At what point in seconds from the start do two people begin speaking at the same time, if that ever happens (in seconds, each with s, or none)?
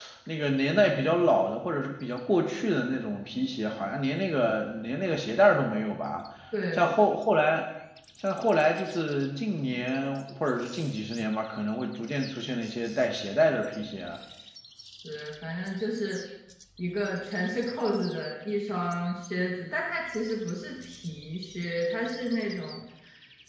none